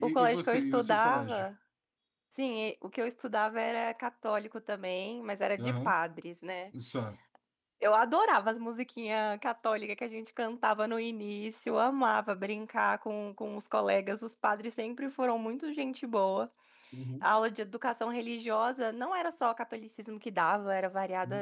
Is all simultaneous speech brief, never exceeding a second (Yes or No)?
No